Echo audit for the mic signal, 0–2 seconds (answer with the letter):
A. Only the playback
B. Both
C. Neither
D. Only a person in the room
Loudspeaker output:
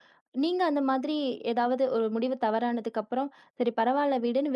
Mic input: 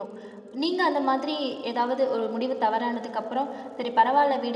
A